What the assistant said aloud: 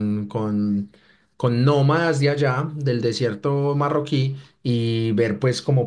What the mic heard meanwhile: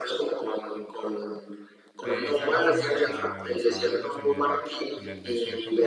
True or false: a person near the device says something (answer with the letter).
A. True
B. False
A